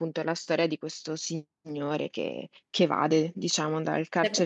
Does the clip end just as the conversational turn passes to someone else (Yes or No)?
Yes